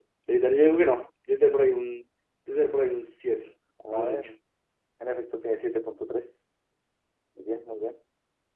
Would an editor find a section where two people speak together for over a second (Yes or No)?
No